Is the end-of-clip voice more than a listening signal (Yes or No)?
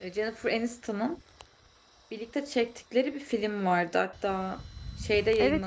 Yes